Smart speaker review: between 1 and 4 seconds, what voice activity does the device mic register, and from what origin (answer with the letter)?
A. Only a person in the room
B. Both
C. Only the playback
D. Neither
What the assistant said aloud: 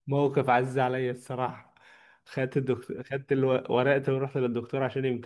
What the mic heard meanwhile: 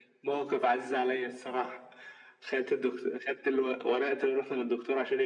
C